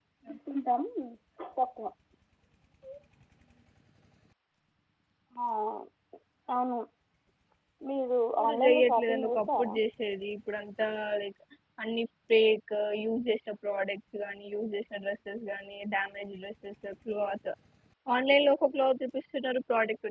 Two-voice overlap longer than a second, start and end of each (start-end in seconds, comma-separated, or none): 8.4-9.8